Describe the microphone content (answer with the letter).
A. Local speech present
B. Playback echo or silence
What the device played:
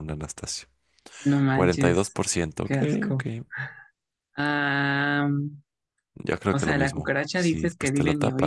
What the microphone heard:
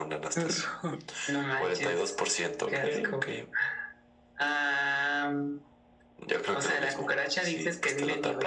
A